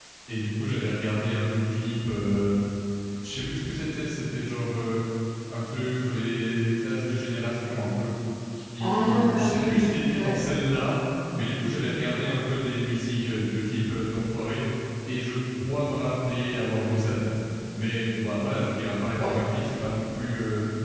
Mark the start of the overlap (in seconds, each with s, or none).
8.8 s